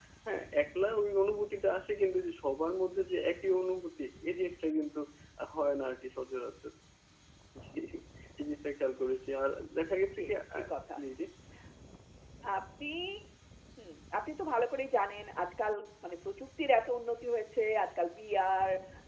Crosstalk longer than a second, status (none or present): none